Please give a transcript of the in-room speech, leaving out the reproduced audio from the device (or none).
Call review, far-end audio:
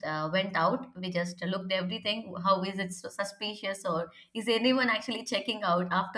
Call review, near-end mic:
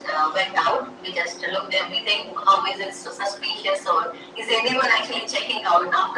none